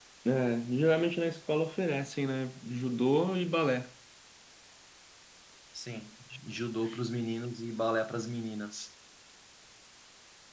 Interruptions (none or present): none